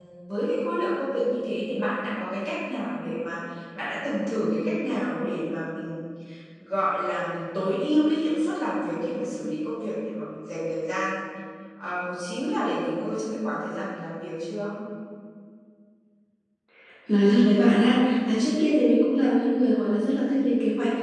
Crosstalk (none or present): none